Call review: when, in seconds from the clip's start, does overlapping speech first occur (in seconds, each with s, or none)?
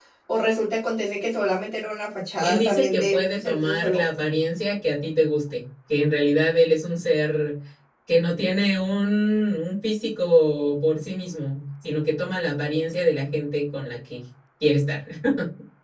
2.4 s